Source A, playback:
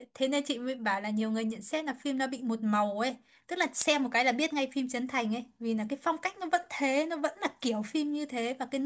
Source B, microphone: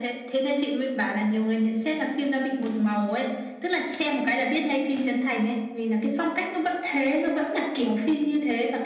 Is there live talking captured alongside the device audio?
No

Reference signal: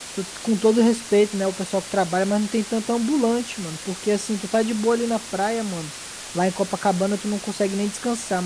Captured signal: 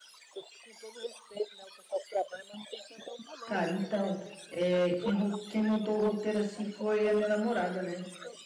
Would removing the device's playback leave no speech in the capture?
No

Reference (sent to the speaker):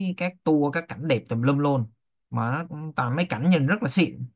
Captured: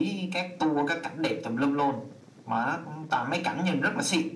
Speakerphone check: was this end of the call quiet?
Yes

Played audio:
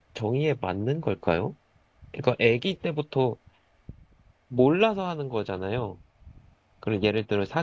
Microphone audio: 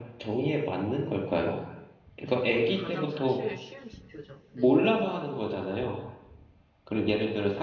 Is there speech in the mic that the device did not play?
Yes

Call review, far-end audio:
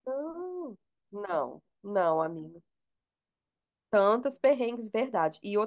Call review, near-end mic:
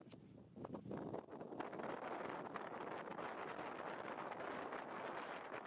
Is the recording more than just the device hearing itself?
No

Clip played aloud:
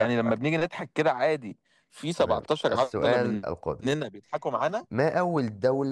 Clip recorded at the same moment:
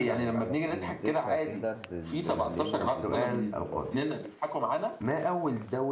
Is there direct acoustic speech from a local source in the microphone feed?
Yes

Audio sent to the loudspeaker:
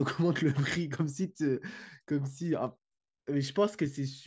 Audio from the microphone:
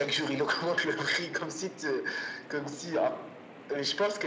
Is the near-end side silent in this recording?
Yes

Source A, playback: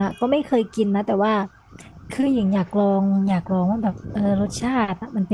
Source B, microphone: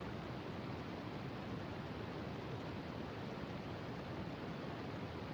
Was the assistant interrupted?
No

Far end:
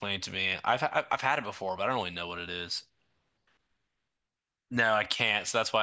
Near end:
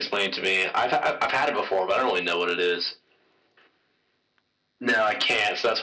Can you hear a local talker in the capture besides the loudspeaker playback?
No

